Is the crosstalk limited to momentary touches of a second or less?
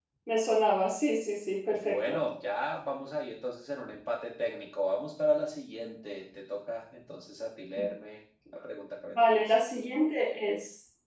Yes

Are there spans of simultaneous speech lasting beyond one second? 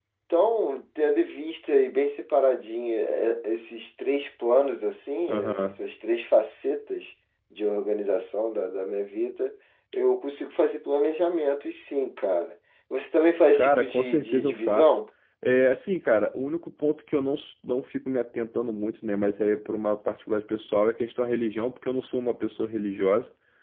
Yes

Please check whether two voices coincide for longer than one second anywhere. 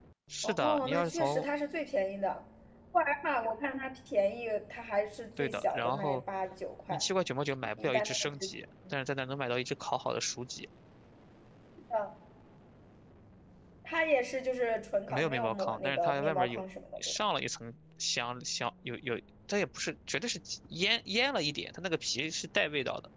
Yes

